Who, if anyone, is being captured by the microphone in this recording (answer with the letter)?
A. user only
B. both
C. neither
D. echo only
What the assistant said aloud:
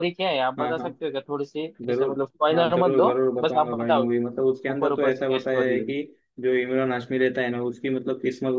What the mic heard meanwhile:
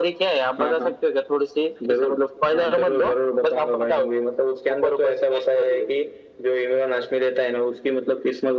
D